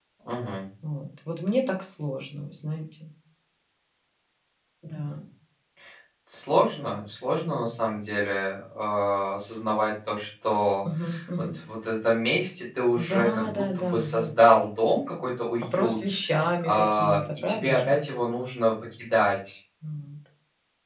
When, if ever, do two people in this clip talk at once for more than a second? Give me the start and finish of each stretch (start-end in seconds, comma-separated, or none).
13.1-14.3, 16.6-18.0